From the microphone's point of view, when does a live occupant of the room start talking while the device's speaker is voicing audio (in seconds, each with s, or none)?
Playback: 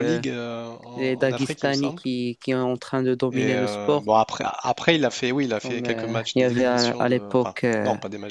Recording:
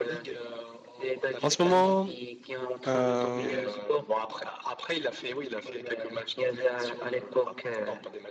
1.4 s